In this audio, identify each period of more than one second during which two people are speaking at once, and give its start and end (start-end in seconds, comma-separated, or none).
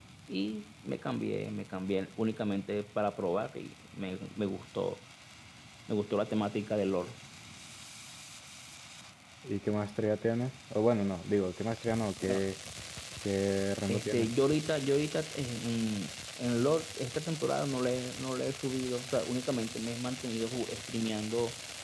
none